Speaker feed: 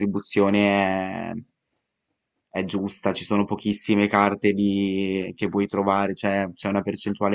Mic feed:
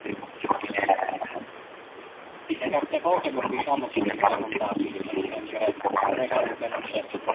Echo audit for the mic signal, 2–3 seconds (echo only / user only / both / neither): both